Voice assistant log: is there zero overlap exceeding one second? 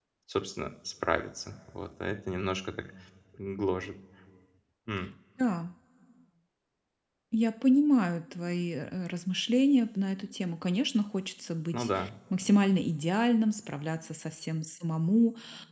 Yes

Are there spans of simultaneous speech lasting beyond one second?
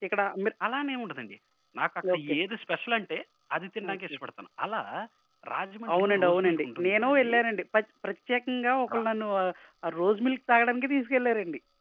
Yes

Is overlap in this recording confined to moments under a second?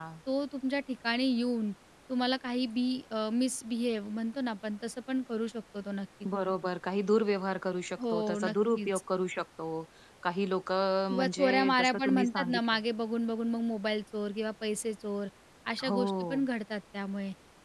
No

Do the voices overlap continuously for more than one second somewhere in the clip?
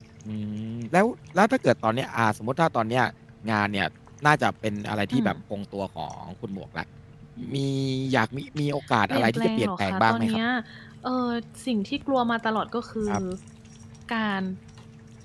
Yes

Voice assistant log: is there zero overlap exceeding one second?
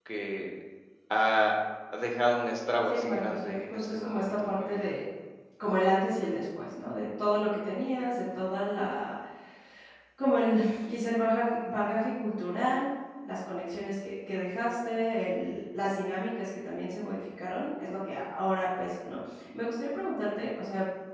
No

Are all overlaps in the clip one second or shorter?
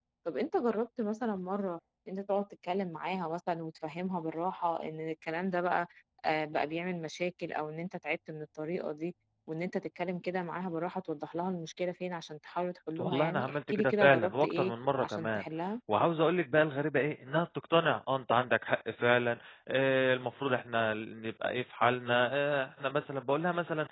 No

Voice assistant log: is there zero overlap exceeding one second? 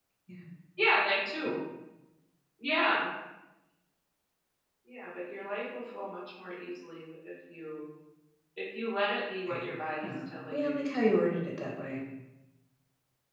No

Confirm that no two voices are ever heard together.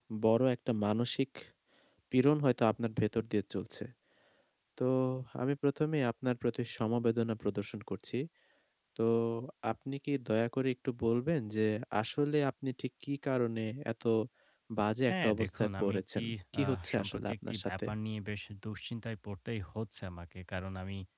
No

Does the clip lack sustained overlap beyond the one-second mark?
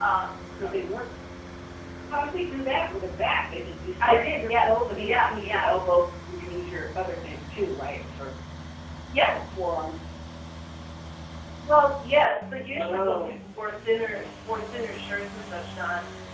No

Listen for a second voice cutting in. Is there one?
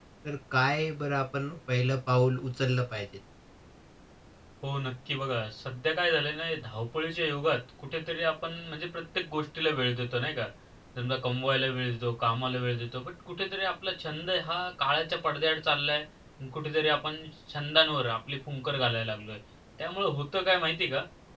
No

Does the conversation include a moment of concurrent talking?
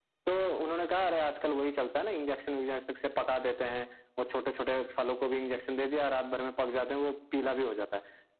No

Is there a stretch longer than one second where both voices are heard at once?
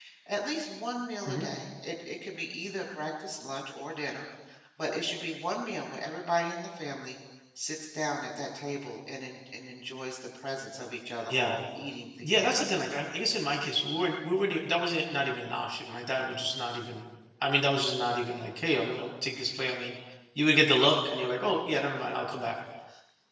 No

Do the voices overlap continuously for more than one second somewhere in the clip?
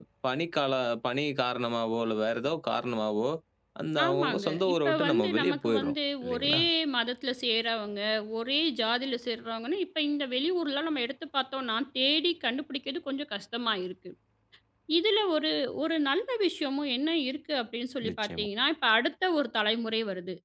Yes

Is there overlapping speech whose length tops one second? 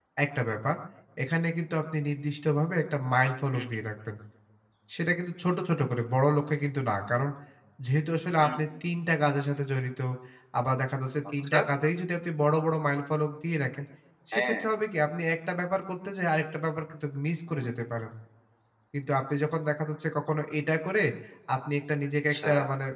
No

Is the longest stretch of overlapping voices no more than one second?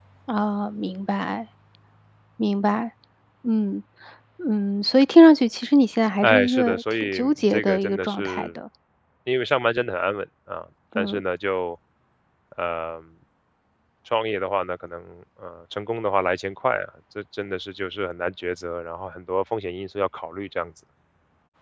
No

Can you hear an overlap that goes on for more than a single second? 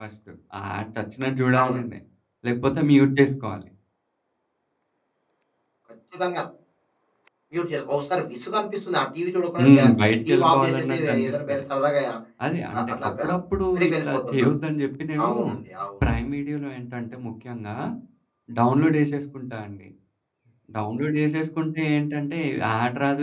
Yes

